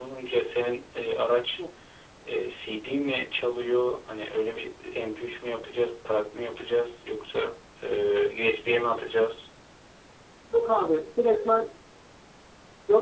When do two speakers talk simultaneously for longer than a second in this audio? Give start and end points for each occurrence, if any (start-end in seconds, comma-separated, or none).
none